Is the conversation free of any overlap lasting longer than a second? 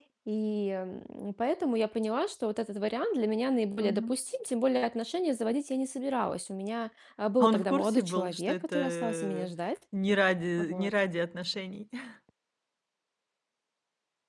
No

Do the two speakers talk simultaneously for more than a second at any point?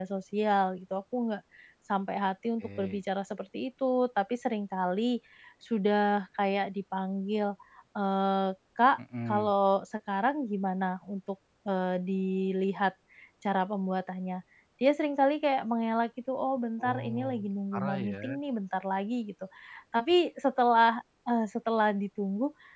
Yes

